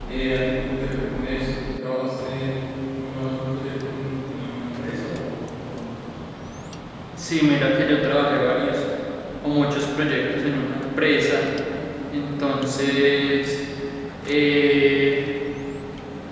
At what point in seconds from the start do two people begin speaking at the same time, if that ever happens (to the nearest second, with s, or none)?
none